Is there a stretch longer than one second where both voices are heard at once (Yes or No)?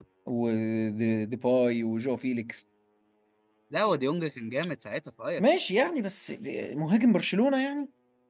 No